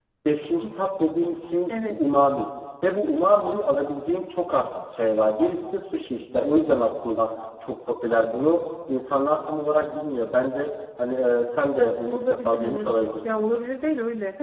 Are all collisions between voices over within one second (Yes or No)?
No